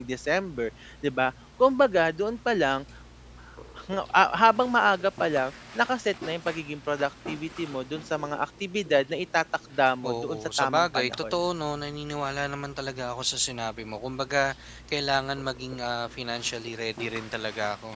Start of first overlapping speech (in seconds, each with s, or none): 10.0 s